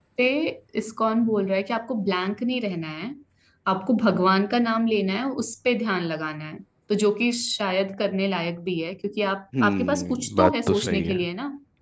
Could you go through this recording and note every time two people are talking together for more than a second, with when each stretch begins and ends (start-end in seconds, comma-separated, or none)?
9.6-11.2